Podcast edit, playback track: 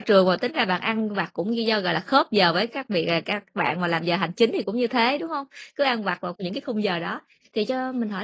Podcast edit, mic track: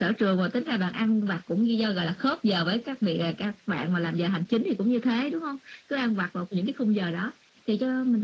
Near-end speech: none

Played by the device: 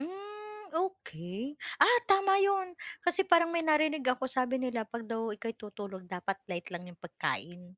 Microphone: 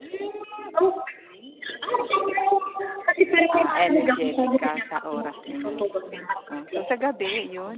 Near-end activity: present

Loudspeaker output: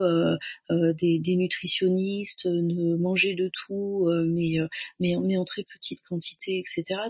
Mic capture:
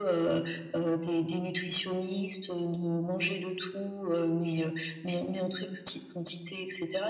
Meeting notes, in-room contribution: none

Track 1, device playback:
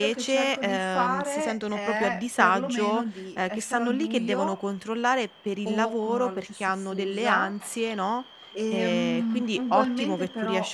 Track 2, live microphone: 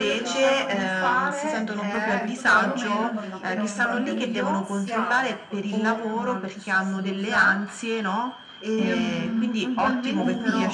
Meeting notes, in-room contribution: present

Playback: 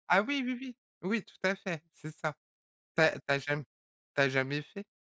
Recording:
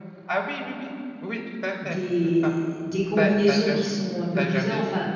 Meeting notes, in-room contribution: present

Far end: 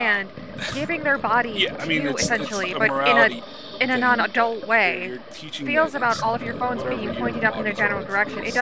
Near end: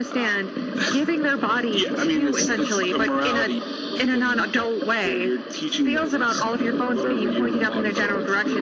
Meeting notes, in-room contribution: none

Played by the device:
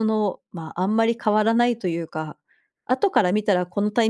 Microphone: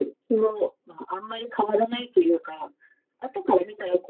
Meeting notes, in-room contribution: none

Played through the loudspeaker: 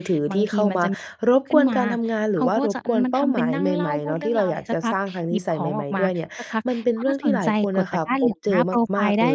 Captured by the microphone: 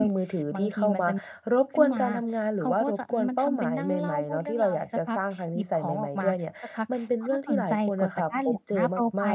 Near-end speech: none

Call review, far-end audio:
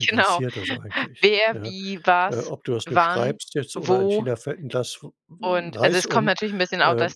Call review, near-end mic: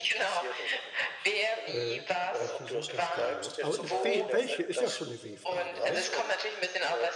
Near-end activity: present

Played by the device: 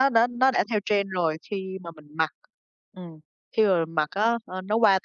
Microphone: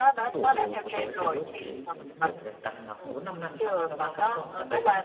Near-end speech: present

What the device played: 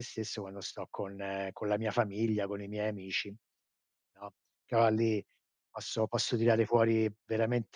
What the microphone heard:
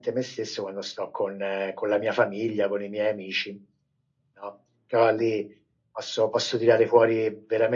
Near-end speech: none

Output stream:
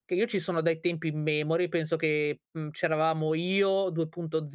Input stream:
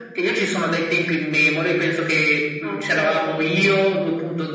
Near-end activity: present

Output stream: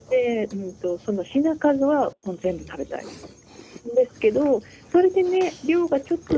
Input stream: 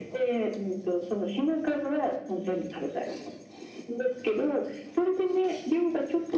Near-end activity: none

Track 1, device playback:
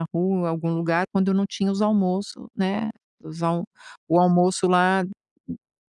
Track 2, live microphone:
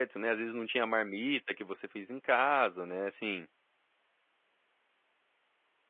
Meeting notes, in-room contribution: present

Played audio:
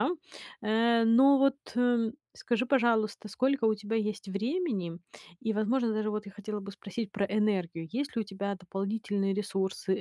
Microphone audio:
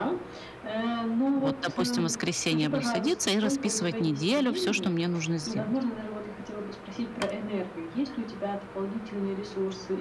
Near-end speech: present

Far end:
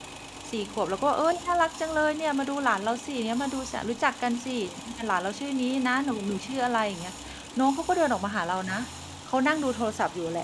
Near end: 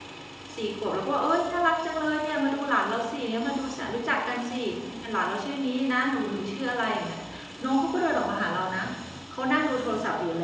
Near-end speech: none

